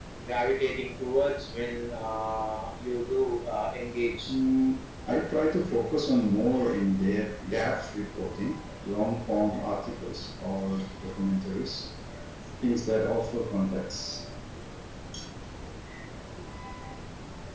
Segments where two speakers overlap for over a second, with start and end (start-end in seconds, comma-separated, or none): none